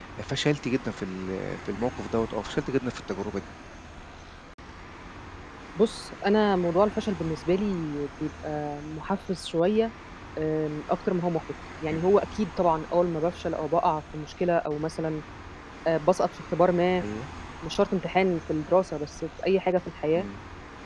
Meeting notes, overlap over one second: none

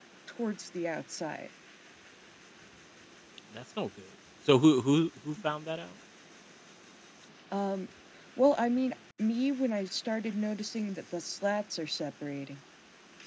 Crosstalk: none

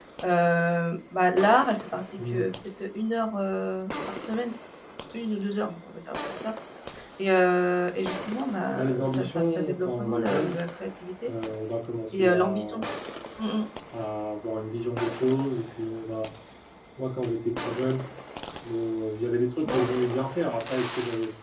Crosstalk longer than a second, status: present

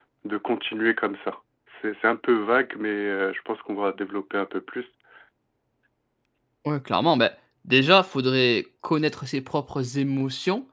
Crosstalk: none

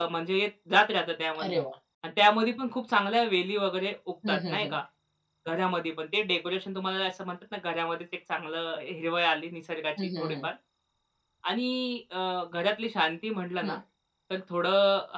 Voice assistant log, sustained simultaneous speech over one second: none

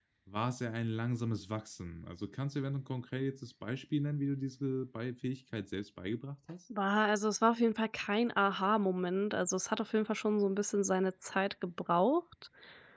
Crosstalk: none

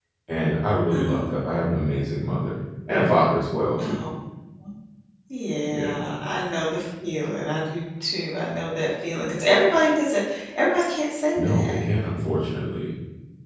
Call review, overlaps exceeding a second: none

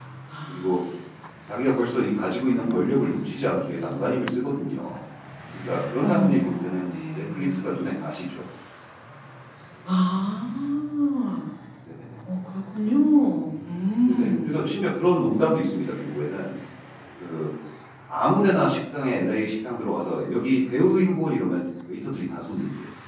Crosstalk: present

